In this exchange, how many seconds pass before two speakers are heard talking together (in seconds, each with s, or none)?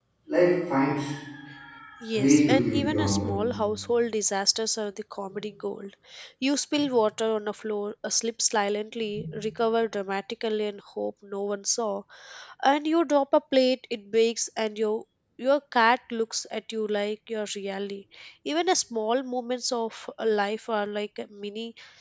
2.1 s